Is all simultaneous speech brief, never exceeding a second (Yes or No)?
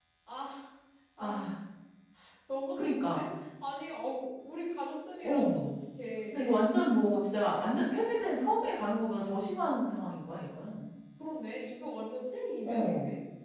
Yes